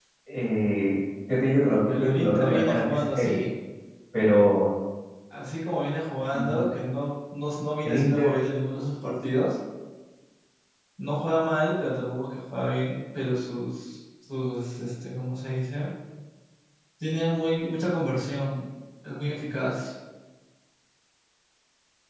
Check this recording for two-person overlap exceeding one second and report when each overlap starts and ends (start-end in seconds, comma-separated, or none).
1.9-3.3